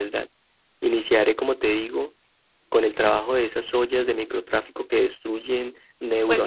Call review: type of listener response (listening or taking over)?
taking over